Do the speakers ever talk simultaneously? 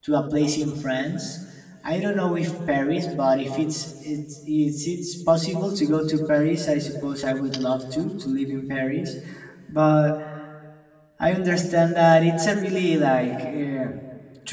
No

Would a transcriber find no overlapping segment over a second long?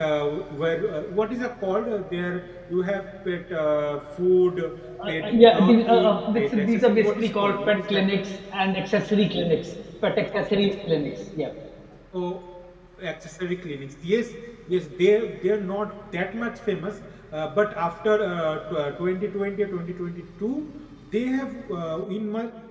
No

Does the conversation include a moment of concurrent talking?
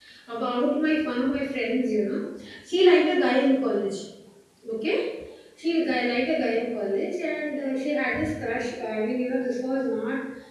No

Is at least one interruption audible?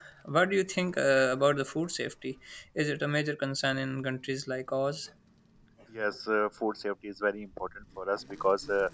No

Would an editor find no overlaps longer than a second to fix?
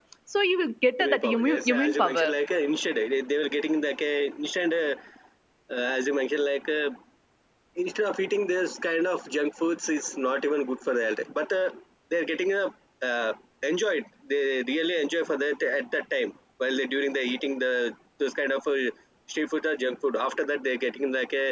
No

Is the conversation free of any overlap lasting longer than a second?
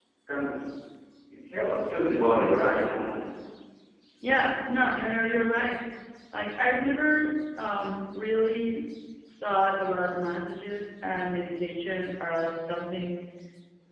Yes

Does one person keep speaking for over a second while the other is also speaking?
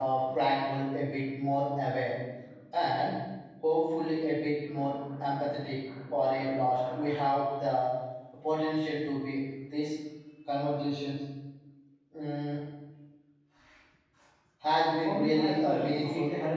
Yes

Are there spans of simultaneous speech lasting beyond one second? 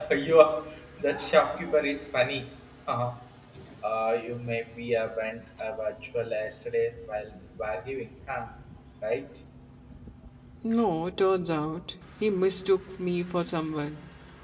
No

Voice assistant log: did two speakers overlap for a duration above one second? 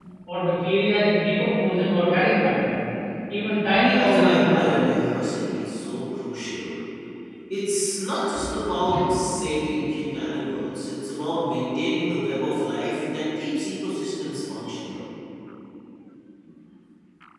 Yes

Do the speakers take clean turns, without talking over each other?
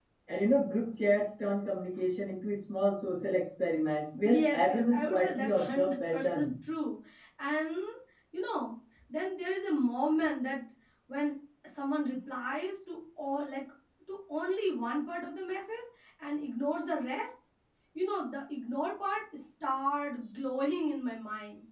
No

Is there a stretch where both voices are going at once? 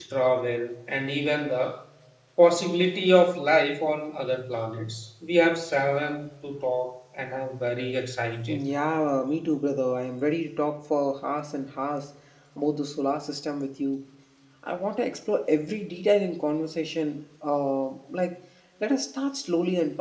No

